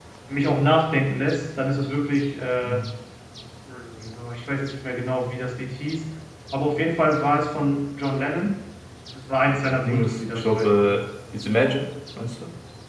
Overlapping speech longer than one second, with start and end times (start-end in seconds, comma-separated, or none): 9.7-11.0